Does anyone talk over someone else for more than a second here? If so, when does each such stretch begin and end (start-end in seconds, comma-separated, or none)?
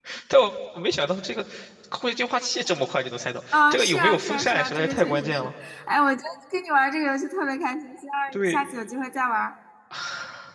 3.5-5.5